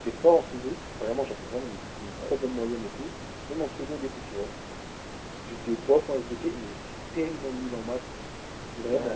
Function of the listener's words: taking over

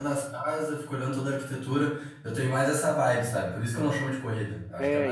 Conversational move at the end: taking over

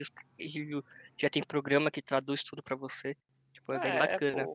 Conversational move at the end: taking over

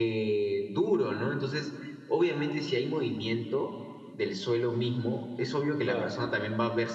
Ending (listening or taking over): listening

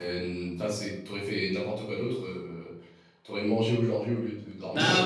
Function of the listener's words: taking over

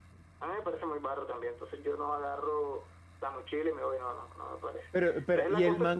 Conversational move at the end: taking over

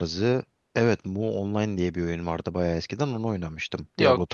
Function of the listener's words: taking over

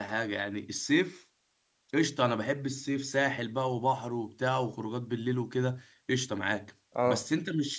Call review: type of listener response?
listening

